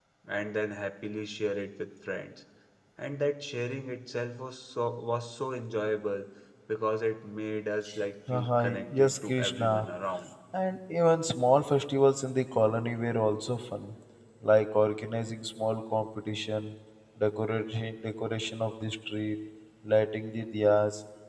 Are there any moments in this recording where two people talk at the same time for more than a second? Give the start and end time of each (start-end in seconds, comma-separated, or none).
8.3-9.9